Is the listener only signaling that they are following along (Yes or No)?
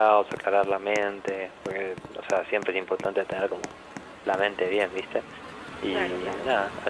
Yes